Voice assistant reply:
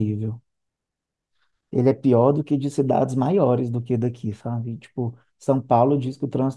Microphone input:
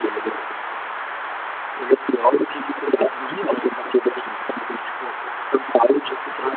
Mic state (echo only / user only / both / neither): echo only